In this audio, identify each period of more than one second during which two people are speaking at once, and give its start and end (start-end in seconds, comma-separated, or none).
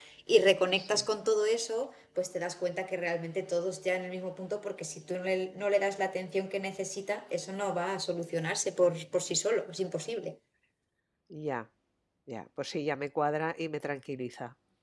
none